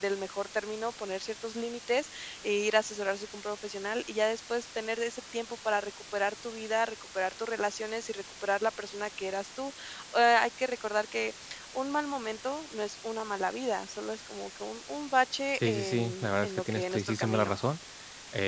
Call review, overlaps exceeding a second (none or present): present